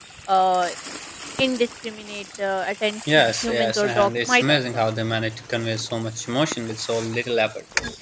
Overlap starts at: 3.1 s

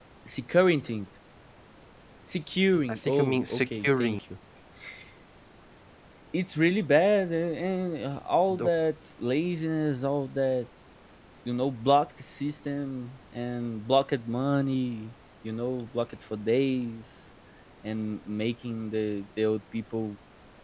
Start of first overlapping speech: 2.9 s

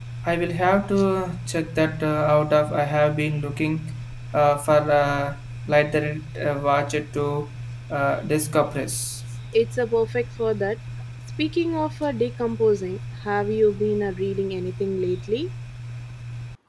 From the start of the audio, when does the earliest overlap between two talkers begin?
none

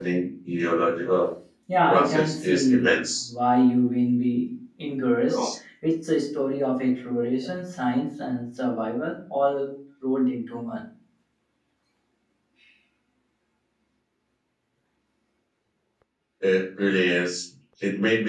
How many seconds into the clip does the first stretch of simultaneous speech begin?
1.9 s

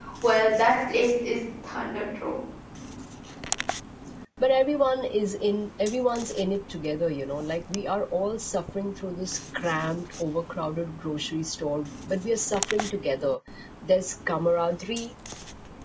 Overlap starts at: none

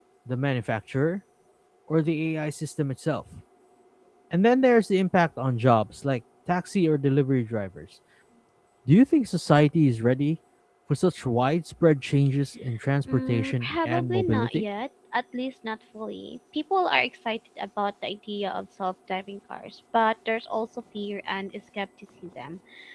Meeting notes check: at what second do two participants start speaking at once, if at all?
13.1 s

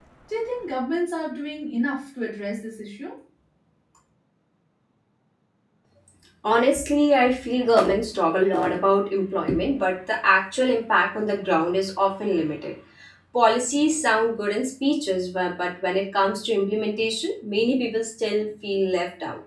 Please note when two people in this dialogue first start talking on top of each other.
none

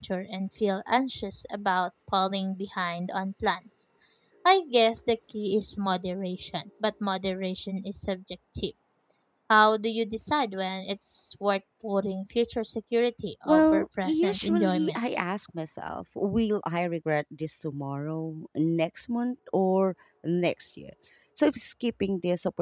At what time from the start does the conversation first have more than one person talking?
13.4 s

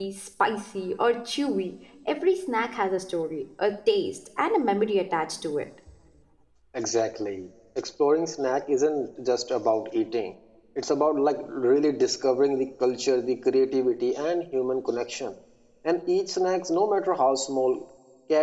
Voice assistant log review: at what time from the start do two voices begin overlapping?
none

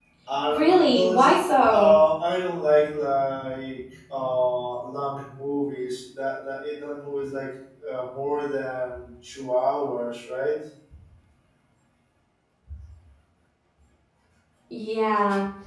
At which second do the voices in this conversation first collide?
0.5 s

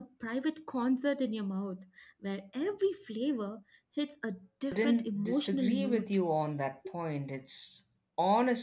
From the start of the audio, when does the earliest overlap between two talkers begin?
4.7 s

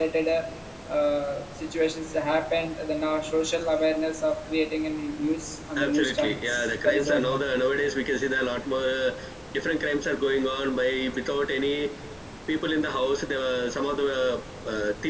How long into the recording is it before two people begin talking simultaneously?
5.8 s

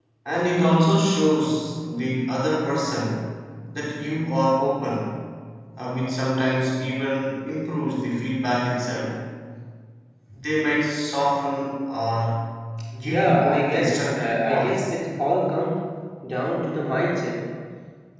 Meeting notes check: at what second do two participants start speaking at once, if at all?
13.0 s

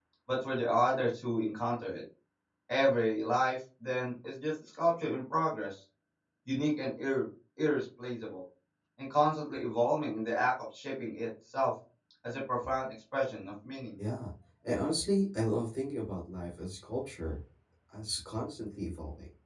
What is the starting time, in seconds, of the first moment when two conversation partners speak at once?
none

